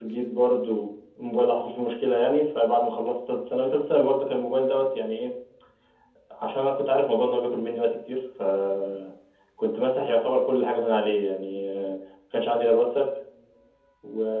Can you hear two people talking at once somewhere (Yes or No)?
No